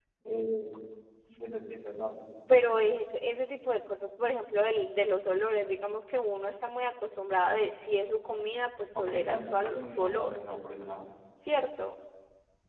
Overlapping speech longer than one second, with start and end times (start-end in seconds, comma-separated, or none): 8.9-10.3